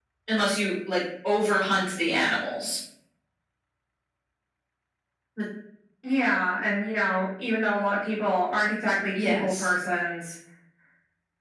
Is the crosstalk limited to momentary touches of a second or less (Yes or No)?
Yes